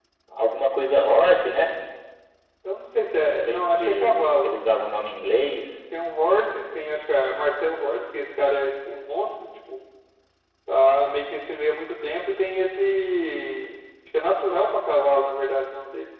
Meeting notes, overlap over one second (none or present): present